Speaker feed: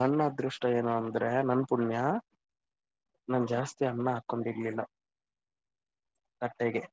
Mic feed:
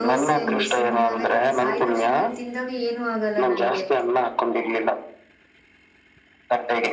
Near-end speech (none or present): present